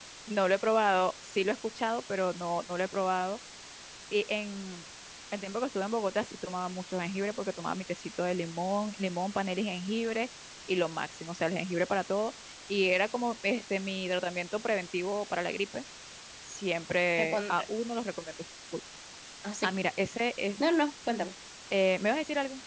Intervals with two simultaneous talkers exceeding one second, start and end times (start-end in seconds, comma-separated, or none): none